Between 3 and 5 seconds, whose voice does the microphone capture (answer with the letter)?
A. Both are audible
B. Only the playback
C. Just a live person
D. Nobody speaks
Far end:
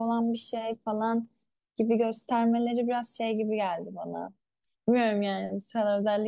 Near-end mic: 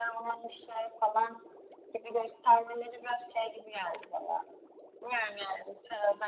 B